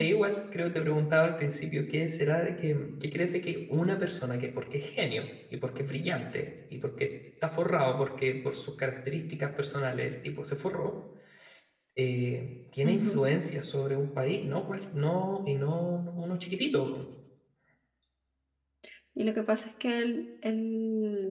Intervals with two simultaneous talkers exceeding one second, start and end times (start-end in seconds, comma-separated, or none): none